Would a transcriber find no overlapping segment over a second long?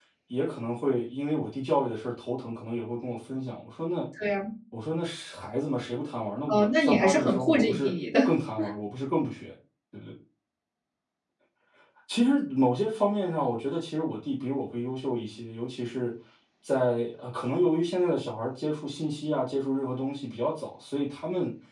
No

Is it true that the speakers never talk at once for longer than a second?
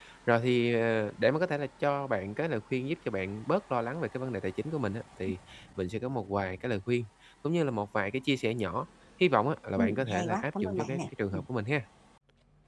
No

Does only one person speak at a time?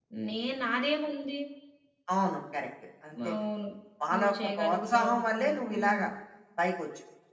No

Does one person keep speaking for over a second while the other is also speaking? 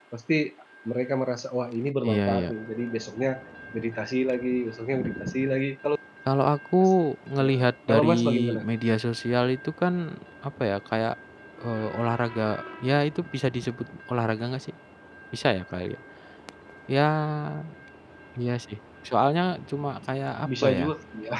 Yes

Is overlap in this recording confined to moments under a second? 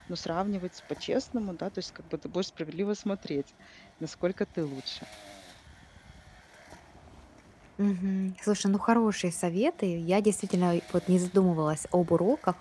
Yes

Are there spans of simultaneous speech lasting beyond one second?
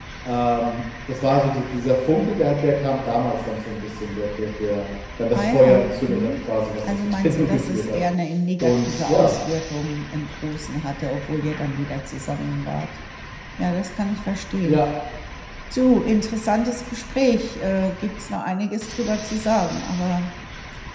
Yes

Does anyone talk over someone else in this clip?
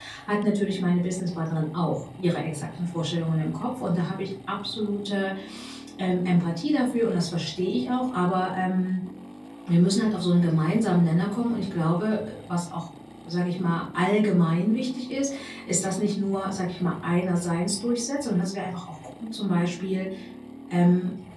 No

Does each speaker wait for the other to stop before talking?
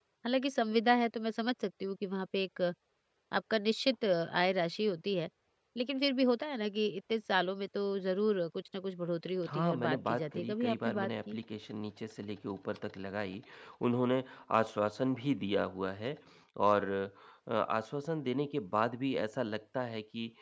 No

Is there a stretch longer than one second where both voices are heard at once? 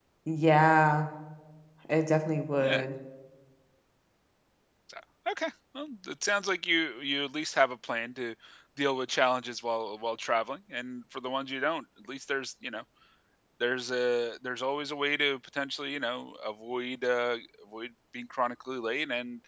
No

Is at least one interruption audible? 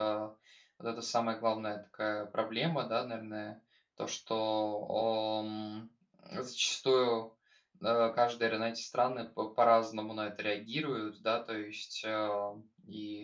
No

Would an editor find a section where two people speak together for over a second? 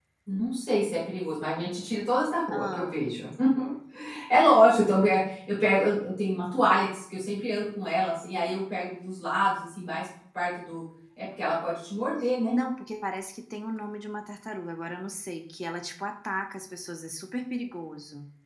No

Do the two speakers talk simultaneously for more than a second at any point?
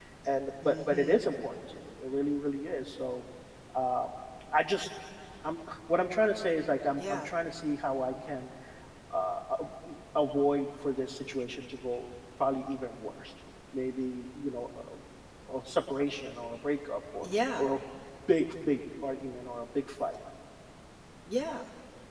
No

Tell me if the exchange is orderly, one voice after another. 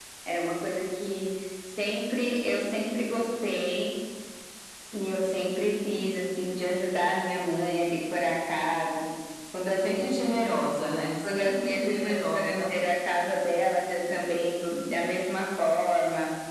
No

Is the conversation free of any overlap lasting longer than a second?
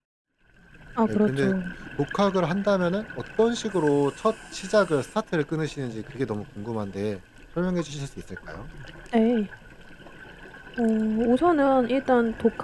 Yes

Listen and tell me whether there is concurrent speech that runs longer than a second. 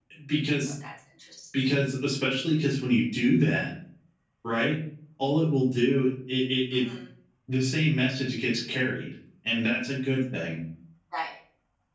No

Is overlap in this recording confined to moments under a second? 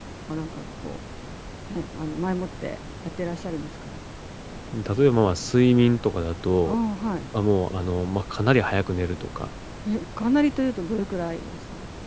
Yes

